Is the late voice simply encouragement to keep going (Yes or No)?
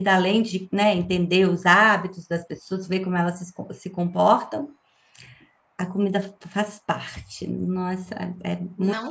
No